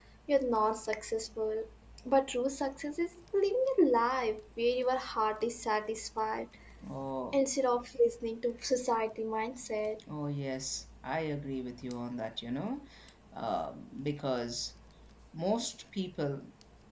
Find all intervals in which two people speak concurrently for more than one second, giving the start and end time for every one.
none

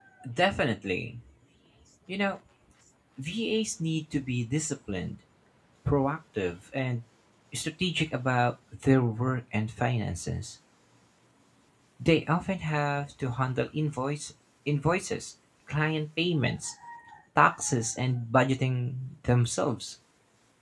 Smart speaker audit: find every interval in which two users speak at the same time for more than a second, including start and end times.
none

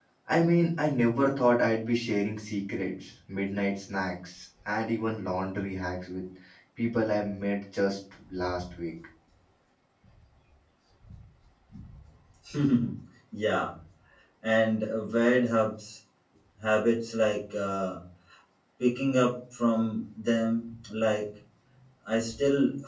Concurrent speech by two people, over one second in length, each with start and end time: none

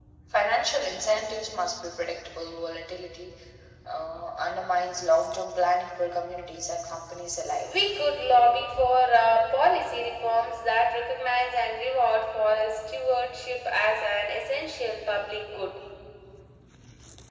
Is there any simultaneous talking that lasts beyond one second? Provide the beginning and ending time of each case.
none

